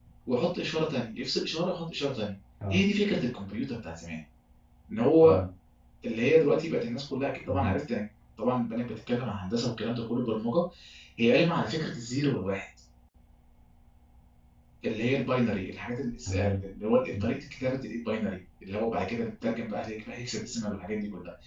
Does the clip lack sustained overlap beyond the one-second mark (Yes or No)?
Yes